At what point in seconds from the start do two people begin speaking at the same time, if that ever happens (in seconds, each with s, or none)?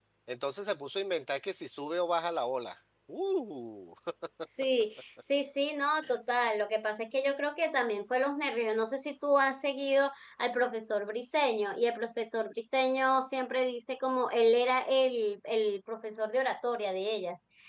none